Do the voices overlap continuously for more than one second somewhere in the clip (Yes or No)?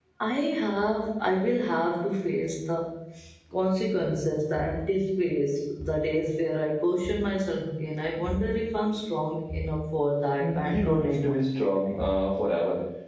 Yes